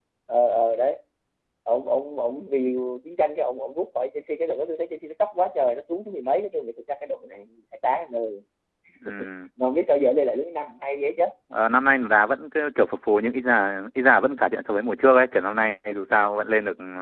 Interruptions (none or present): none